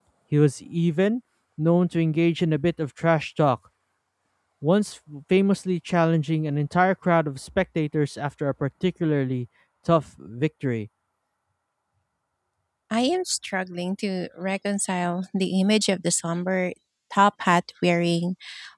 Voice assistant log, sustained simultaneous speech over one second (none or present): none